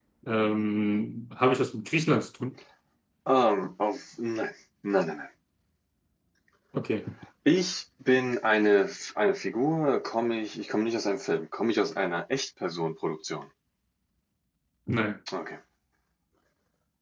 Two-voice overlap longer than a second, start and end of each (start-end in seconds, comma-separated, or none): none